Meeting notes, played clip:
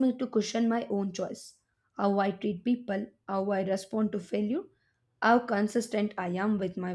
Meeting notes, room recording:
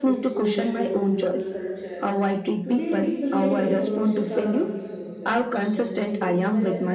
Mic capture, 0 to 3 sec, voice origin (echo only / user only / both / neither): both